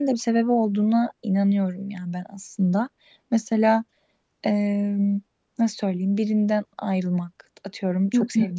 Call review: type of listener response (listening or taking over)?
listening